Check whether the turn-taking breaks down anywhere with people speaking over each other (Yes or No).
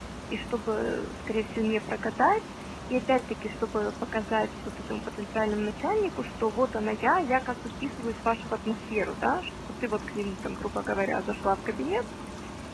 No